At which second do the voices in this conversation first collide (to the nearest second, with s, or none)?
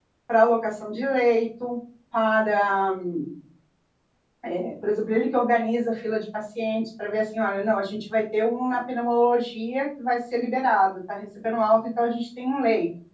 none